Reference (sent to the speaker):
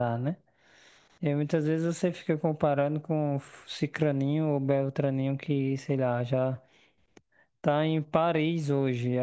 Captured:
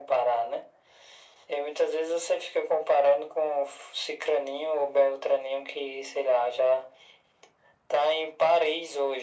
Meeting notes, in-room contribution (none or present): none